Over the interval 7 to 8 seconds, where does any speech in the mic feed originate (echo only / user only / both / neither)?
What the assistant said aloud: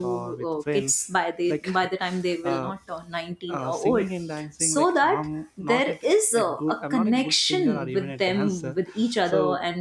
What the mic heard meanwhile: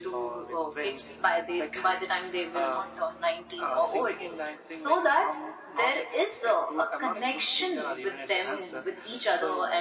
echo only